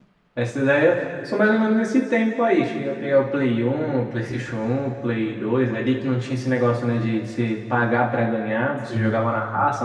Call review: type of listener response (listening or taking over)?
listening